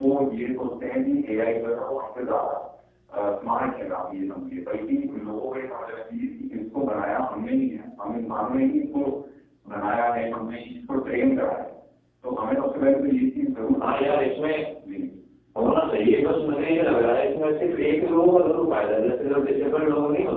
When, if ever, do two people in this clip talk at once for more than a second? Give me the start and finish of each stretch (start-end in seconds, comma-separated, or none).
none